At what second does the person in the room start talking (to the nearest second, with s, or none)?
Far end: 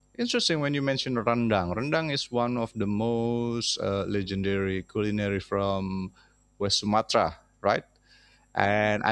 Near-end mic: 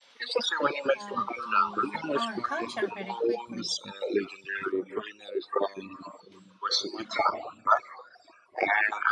1 s